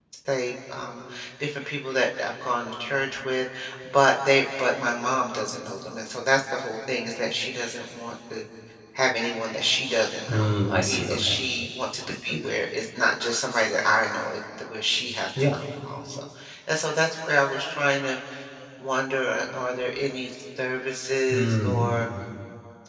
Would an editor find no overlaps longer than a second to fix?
Yes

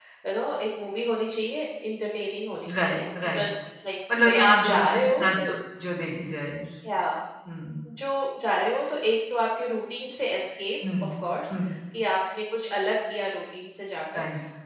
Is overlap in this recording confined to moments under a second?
No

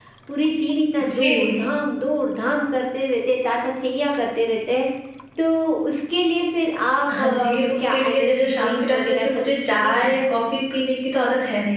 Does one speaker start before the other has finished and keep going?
Yes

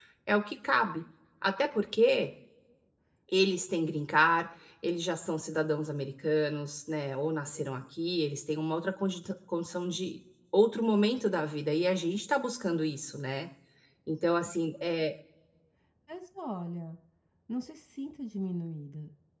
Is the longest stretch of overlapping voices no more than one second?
Yes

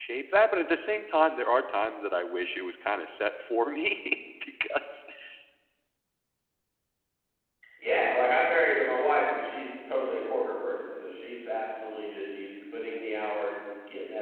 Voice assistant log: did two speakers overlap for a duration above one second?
No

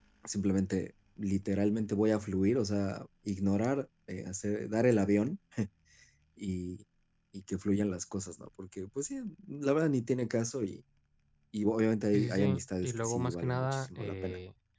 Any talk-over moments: Yes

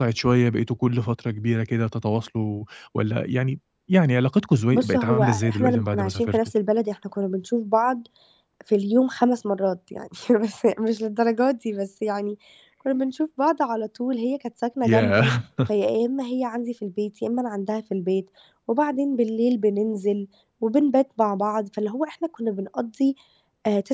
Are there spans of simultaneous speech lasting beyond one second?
Yes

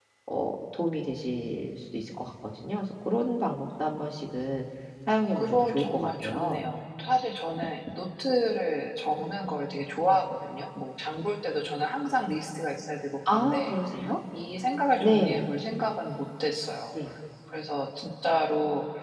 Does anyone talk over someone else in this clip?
Yes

